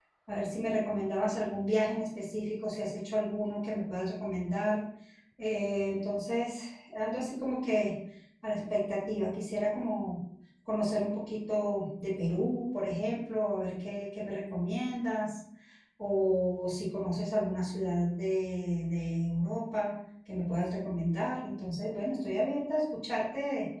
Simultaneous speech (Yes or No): No